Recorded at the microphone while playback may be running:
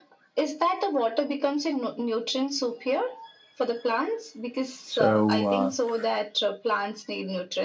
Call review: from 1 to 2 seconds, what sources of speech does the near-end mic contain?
echo only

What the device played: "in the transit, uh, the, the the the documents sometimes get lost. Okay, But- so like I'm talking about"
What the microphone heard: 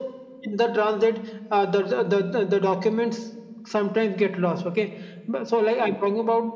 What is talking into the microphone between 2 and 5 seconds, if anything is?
echo only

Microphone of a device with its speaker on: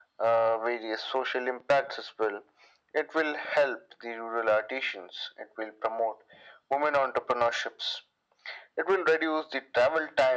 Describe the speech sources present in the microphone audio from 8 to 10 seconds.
echo only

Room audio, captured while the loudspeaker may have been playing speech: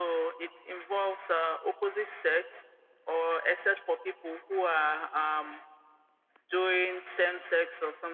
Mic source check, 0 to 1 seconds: echo only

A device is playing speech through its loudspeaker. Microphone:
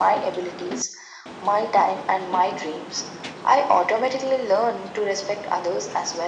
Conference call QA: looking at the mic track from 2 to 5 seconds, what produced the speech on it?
echo only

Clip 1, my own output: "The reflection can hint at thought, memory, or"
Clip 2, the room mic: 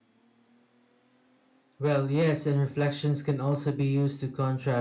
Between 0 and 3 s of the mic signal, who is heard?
user only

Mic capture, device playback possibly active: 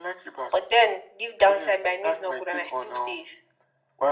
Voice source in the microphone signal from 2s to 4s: echo only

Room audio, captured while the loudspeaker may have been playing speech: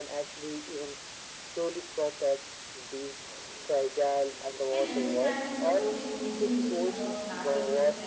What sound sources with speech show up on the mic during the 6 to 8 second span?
both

